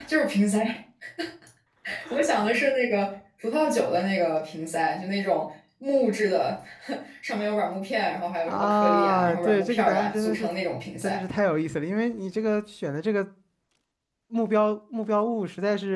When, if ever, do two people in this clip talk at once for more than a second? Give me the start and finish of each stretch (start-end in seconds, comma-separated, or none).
8.5-10.5